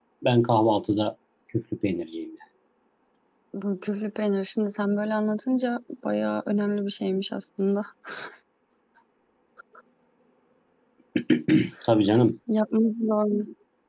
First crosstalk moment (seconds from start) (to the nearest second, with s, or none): none